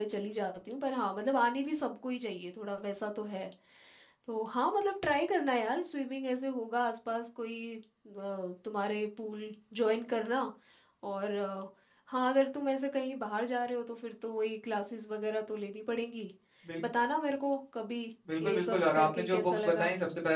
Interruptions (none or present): present